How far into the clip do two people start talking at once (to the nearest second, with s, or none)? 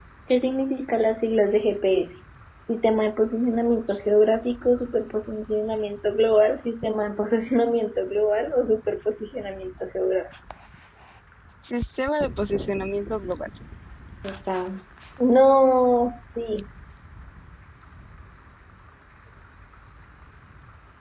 none